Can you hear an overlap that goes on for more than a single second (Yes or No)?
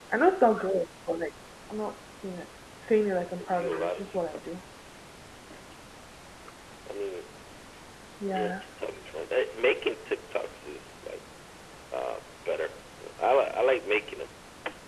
Yes